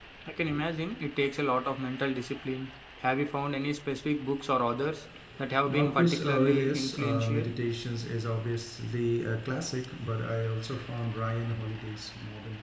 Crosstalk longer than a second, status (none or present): present